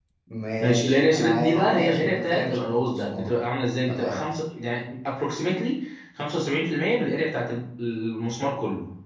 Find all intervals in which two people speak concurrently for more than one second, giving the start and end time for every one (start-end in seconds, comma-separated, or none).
0.6-3.3